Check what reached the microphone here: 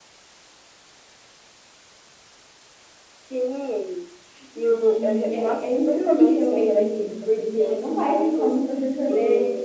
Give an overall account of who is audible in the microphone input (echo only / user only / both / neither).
both